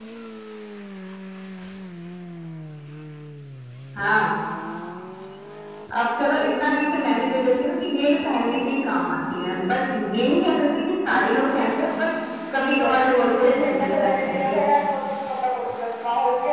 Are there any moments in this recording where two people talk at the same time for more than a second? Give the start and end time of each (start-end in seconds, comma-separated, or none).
12.7-14.6